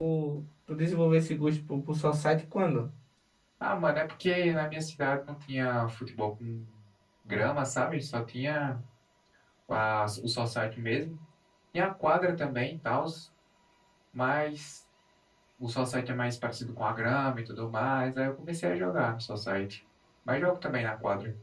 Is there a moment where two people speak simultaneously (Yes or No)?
No